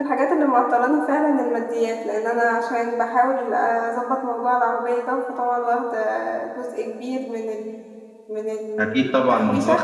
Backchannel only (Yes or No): No